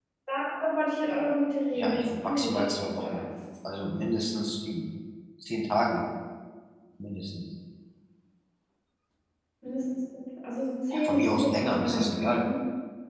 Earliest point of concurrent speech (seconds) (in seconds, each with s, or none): 1.7 s